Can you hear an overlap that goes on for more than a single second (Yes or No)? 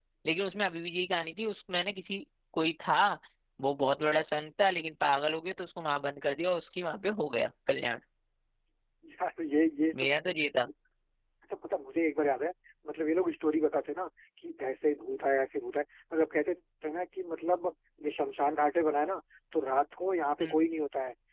No